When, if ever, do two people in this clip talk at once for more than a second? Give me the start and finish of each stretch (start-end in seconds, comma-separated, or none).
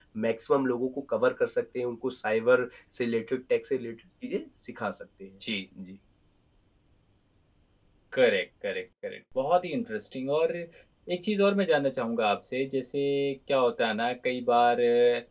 none